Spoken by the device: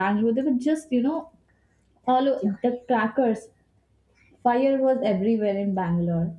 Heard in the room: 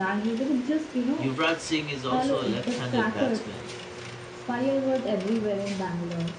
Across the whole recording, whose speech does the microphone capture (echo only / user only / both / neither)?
both